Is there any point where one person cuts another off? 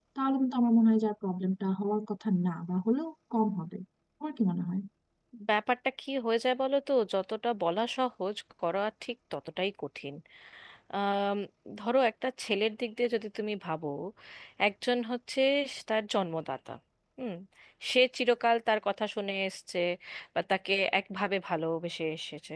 No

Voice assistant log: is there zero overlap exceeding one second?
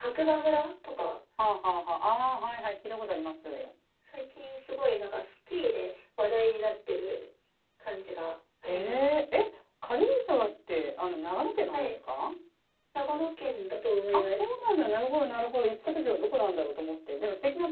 Yes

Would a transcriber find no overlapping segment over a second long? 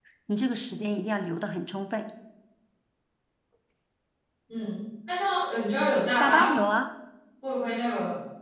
Yes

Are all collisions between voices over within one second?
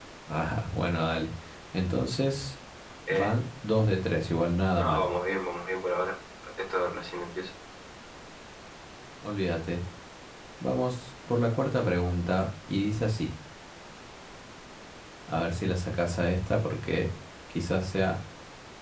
Yes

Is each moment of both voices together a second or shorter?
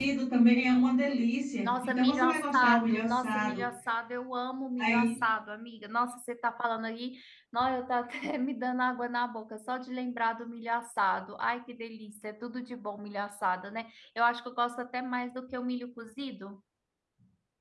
No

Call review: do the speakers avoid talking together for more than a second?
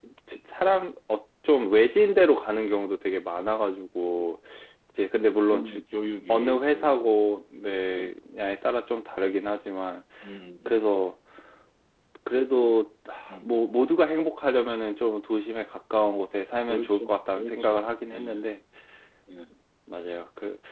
No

